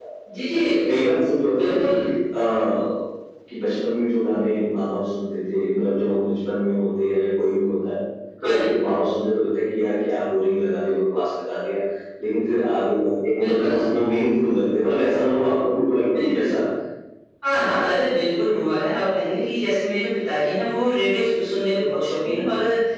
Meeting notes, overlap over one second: none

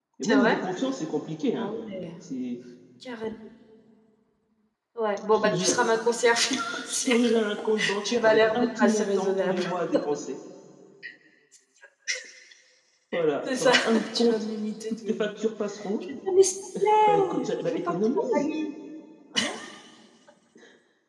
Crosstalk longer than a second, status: present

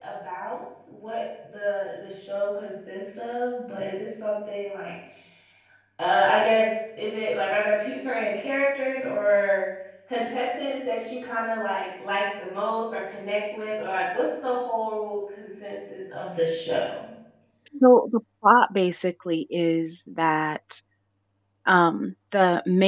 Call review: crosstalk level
none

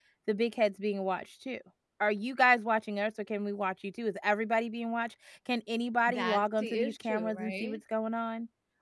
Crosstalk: present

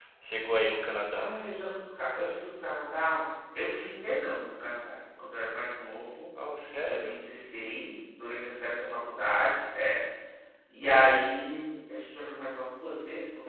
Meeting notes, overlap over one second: none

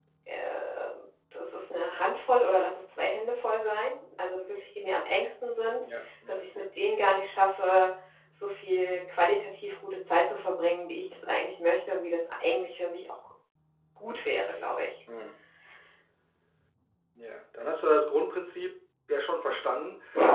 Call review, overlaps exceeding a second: none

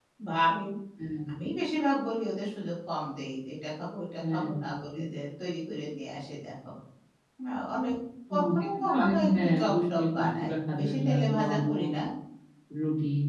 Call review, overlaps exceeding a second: present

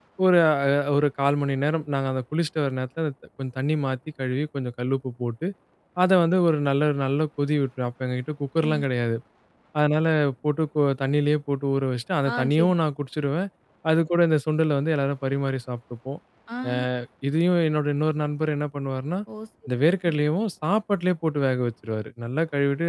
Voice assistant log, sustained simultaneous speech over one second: none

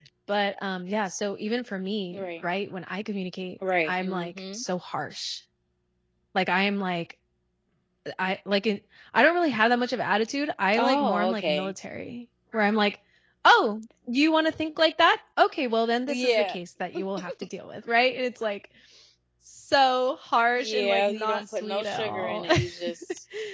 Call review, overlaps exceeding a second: present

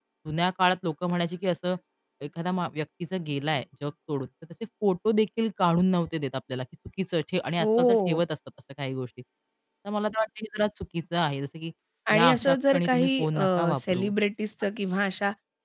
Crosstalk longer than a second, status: present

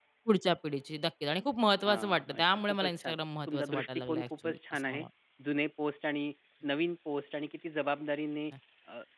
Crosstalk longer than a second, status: present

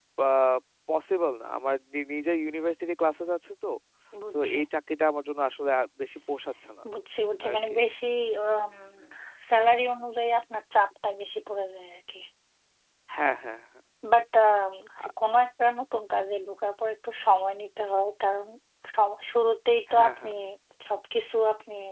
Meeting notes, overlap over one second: none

